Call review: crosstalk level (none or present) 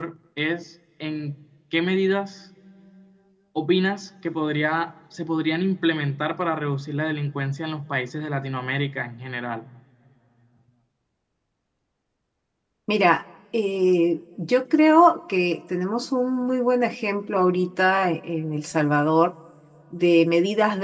none